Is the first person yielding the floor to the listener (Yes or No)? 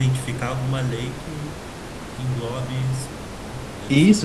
Yes